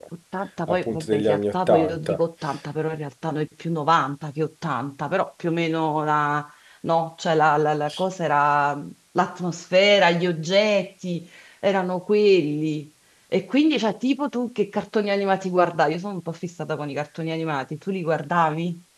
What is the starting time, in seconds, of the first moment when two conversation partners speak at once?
1 s

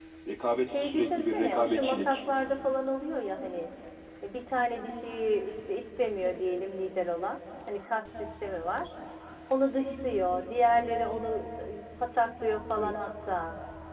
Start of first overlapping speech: 1 s

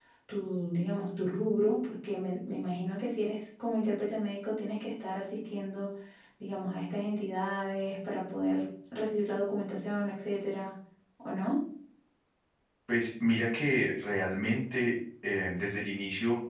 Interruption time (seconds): none

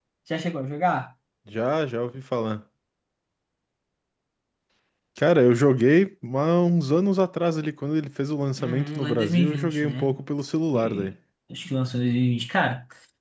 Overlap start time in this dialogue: 9 s

